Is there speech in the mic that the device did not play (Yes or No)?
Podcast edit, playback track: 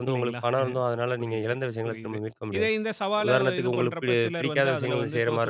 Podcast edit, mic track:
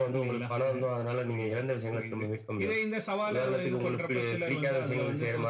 No